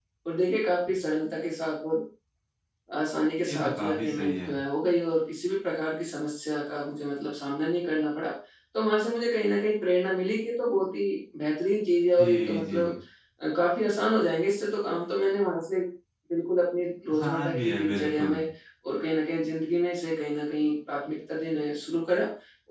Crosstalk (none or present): present